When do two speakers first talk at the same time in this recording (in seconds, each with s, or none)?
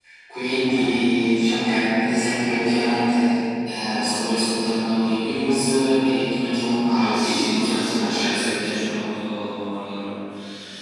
7.1 s